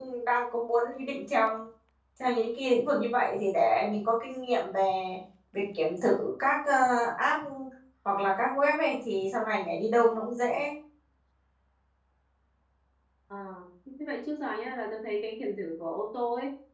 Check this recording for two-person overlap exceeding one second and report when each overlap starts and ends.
none

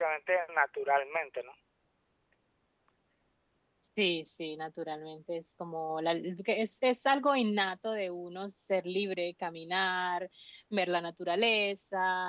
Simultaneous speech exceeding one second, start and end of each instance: none

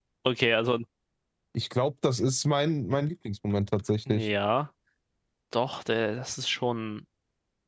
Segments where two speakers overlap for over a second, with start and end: none

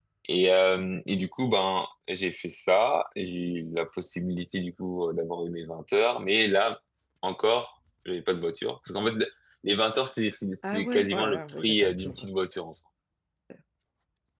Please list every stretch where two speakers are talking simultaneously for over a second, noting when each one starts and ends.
10.7-12.3

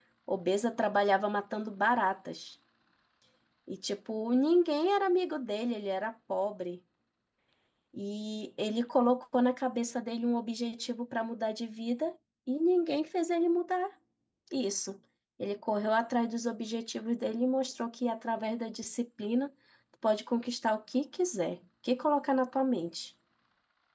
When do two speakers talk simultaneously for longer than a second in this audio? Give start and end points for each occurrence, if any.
none

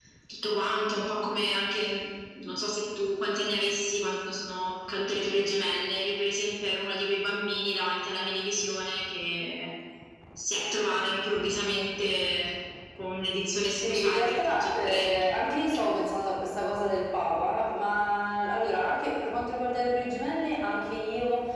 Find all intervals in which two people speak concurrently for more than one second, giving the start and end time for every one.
13.7-15.1

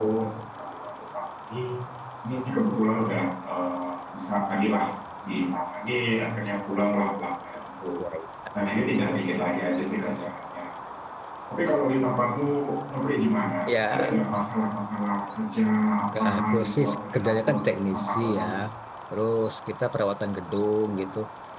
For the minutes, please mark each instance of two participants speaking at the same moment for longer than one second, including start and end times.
16.2-18.5

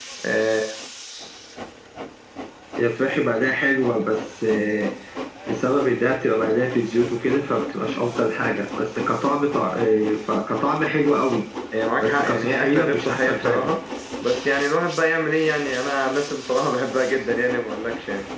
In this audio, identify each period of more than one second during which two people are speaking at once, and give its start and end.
12.0-13.7

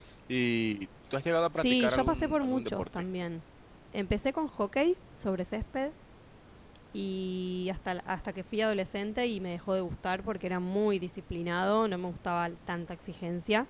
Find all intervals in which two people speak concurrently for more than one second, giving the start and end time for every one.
1.5-2.9

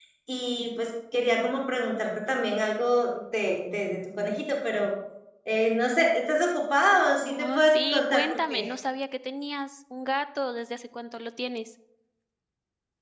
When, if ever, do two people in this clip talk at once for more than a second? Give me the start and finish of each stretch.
7.2-8.7

